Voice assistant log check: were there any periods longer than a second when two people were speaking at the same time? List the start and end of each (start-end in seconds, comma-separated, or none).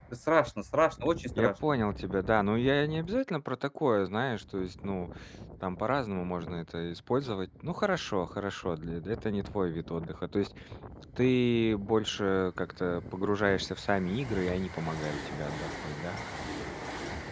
none